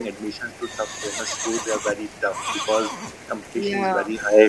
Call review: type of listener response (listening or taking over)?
listening